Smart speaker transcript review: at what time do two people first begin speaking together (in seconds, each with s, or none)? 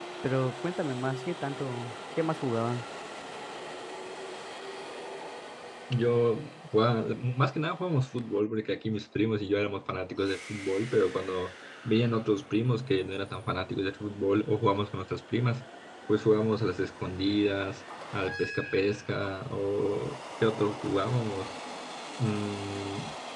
none